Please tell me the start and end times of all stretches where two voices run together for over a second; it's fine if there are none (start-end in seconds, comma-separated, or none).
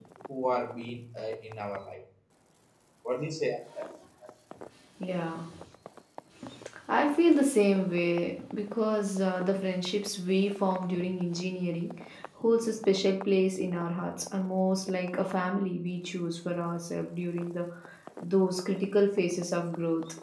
none